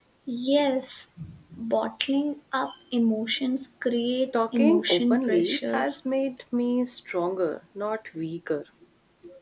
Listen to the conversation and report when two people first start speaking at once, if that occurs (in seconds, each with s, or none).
4.3 s